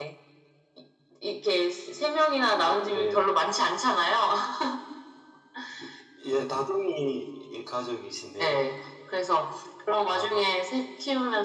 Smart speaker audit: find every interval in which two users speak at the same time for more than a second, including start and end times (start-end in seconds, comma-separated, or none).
none